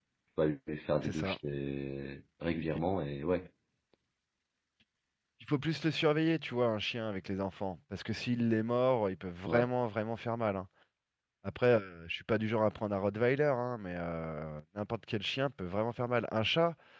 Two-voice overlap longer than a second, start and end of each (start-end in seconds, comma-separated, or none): none